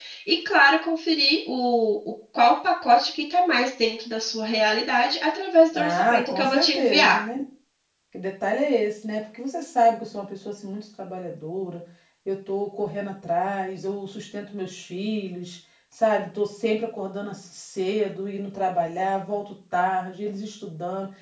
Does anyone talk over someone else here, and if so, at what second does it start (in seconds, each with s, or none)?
5.7 s